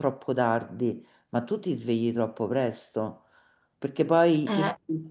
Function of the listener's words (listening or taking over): listening